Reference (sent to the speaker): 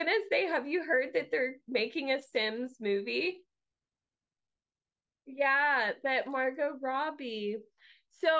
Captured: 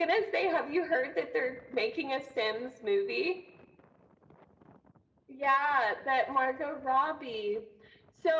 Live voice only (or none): none